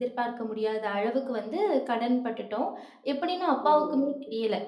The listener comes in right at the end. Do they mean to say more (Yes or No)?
No